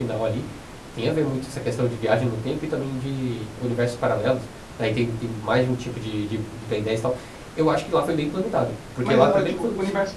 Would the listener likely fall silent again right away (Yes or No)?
No